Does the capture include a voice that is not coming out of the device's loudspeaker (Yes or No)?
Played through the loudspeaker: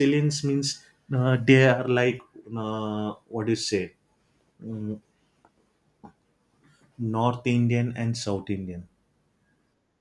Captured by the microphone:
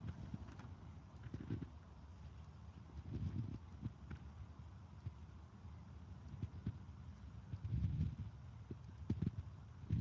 No